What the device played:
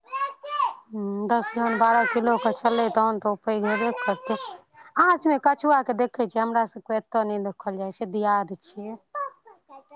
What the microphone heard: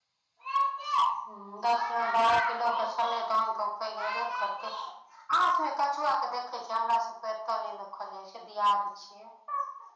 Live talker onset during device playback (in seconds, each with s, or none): none